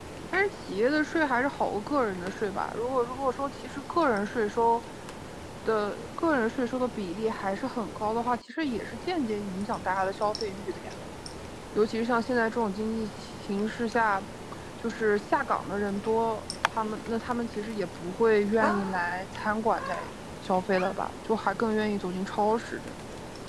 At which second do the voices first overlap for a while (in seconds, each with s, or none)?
none